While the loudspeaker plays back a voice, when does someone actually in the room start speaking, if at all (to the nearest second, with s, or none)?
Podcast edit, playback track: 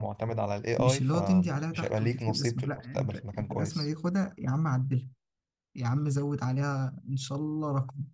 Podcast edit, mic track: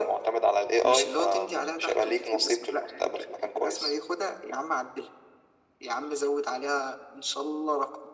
none